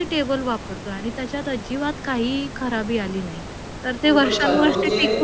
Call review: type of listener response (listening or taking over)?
taking over